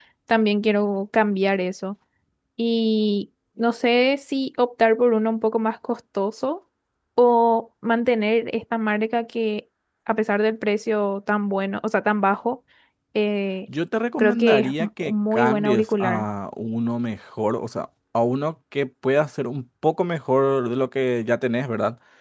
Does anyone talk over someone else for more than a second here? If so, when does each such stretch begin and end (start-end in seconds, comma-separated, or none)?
14.2-16.2